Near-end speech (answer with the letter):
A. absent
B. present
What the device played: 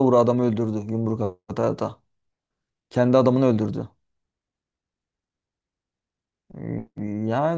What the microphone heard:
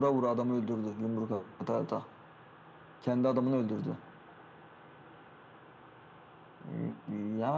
A